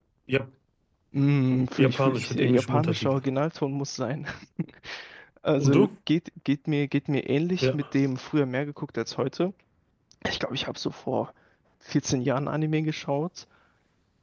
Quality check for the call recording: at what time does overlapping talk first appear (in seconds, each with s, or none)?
1.8 s